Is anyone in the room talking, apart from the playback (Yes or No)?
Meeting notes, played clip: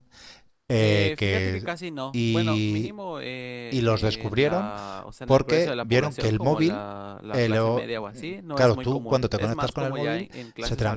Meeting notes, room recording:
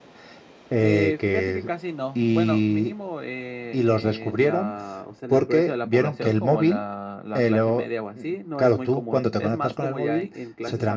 No